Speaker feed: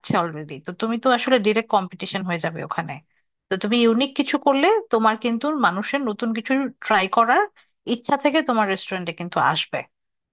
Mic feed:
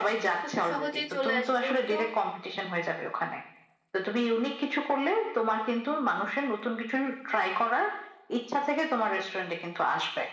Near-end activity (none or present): present